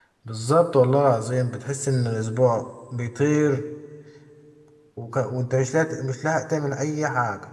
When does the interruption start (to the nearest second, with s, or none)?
none